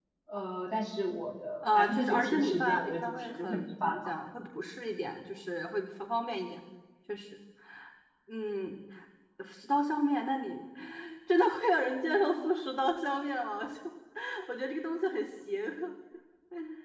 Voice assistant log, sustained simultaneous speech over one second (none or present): present